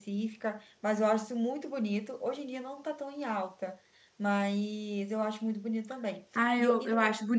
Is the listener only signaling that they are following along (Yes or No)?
No